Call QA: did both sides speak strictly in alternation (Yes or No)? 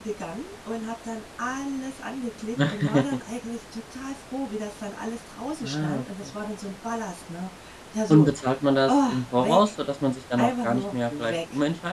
No